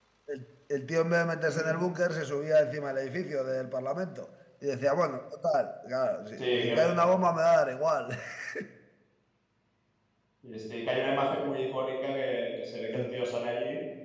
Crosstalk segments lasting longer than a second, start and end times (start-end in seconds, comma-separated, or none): none